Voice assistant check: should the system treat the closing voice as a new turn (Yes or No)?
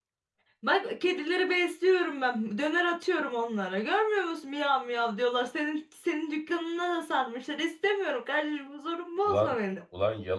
Yes